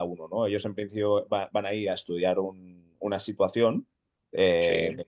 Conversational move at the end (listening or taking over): listening